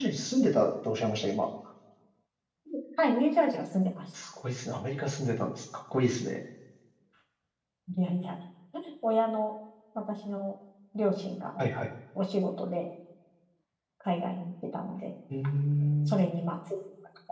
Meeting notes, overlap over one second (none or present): none